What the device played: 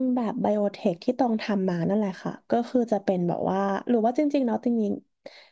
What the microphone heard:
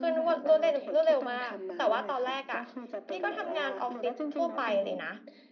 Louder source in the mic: user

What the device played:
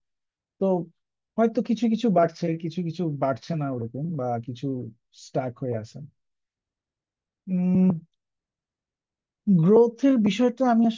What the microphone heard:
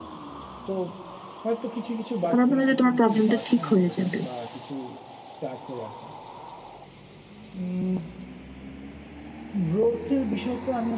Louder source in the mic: user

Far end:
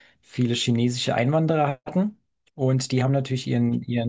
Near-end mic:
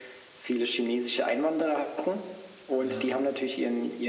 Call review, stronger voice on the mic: echo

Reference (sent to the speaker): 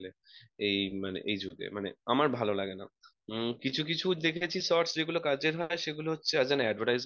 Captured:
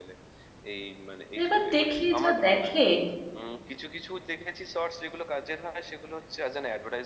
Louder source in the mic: user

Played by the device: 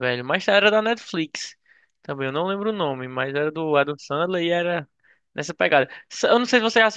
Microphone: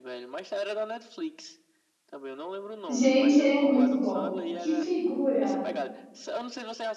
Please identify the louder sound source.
user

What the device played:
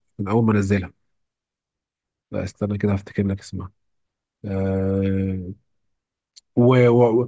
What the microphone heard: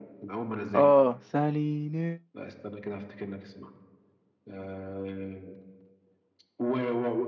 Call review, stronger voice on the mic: user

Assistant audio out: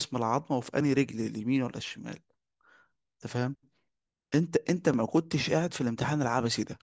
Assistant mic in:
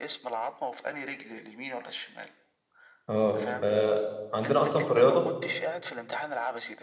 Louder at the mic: user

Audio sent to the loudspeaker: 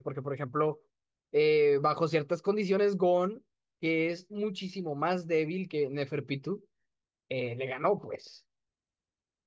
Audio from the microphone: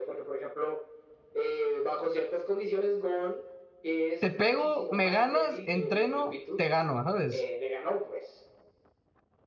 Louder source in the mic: user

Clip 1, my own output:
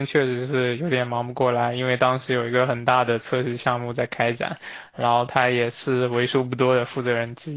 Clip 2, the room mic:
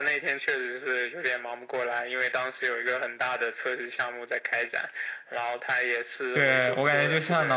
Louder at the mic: user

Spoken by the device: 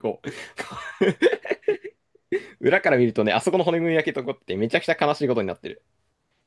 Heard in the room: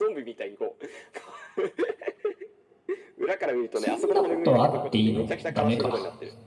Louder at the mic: user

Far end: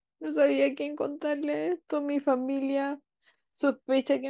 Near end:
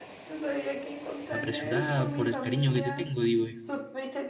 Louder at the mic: user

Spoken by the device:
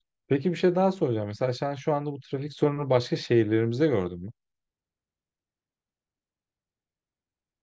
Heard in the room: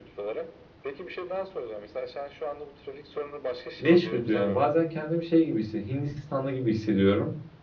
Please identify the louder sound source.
user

